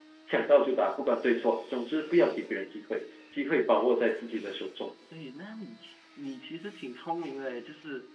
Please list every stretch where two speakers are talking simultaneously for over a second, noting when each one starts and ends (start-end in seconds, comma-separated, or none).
none